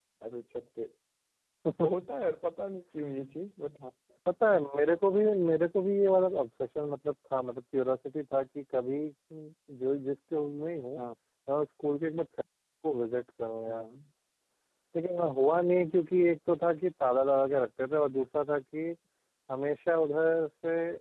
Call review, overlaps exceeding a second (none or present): none